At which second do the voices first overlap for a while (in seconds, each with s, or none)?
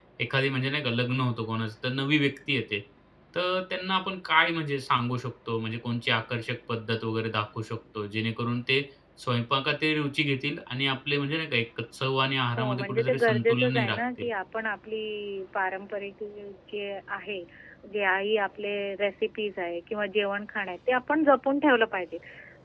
12.6 s